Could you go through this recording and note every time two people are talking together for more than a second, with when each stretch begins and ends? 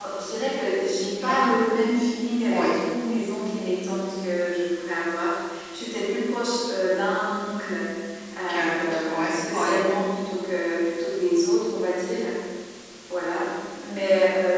8.5-9.7

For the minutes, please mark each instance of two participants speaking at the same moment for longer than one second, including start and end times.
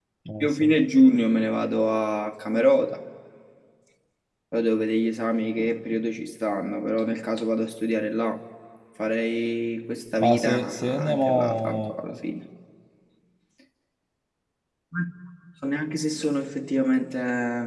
10.2-11.9

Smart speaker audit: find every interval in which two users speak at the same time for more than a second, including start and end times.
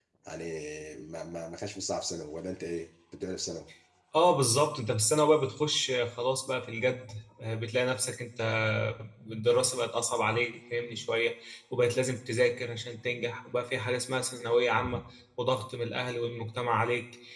none

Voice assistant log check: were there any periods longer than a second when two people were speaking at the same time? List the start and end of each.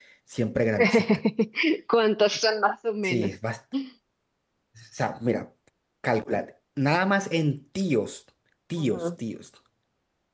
none

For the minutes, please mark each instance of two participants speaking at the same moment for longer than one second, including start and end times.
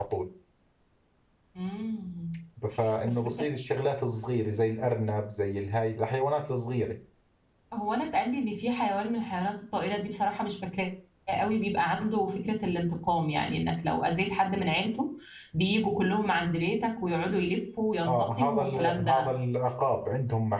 18.1-19.3

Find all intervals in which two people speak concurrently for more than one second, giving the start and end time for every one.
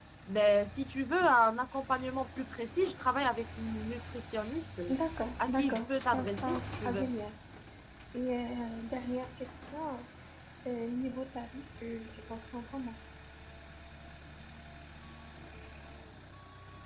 5.5-7.0

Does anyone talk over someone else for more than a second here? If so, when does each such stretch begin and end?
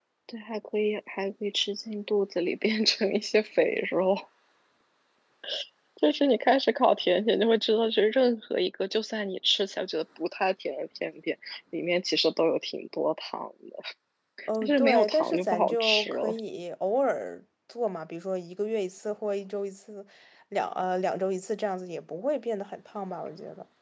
14.6-16.4

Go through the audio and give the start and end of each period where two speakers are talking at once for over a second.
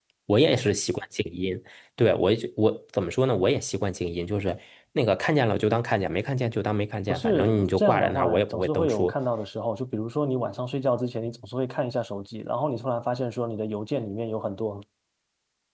7.1-9.1

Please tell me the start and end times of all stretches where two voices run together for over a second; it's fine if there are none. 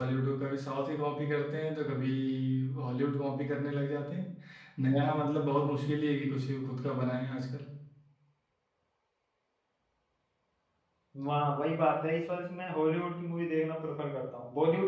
none

